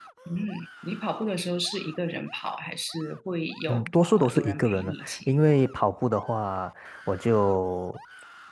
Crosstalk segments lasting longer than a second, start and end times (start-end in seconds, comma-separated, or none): 3.7-5.2